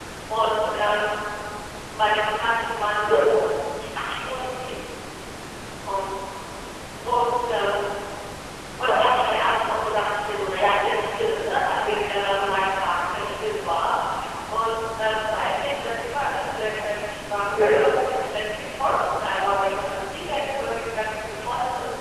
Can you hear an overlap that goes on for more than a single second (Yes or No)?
Yes